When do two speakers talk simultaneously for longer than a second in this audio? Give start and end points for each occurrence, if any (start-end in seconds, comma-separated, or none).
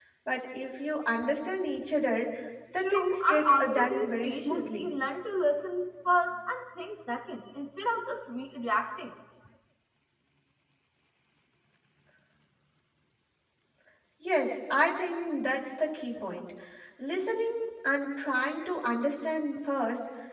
2.8-4.9